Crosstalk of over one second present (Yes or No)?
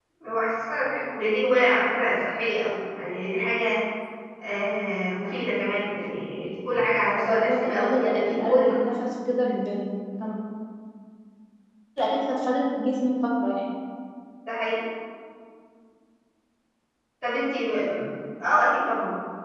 Yes